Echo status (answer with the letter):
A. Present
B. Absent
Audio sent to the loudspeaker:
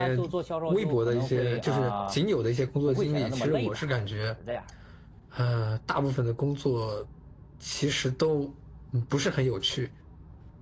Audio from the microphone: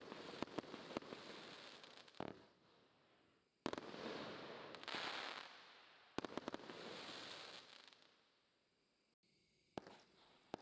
B